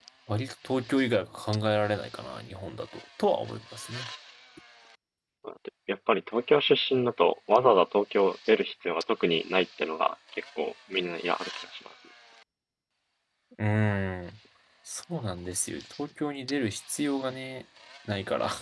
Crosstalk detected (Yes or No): No